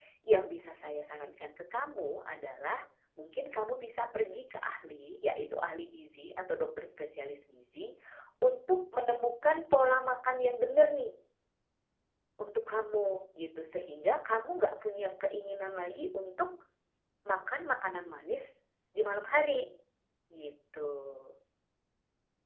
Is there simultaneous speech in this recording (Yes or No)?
No